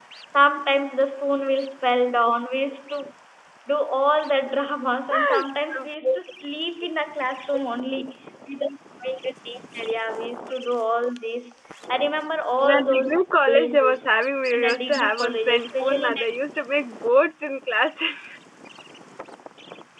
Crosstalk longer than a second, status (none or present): present